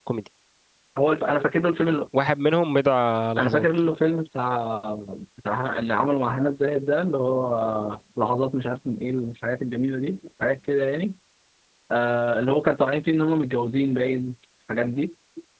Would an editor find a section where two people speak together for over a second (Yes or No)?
No